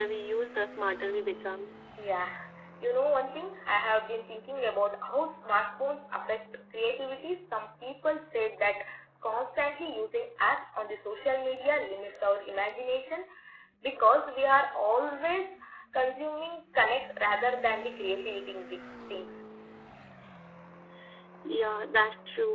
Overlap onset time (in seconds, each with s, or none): none